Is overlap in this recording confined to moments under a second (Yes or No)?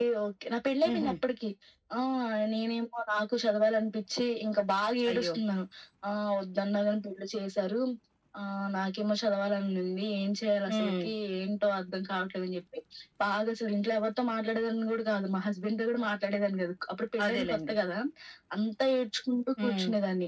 Yes